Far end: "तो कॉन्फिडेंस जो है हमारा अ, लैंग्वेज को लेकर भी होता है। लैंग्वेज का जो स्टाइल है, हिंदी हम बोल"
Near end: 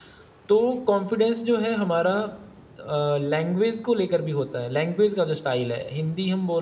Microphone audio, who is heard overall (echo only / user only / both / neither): echo only